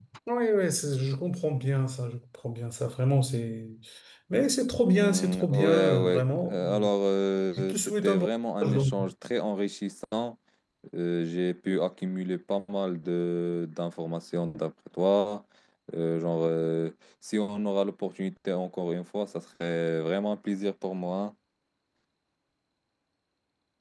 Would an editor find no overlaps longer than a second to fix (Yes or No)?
No